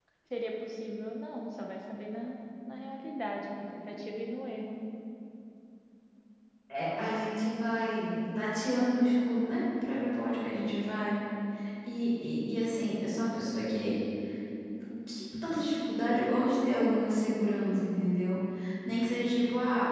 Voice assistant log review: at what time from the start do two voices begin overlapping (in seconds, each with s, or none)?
none